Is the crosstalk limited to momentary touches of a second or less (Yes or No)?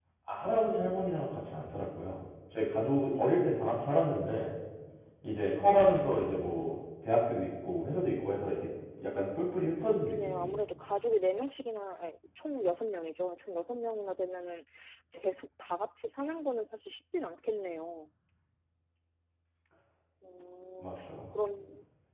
No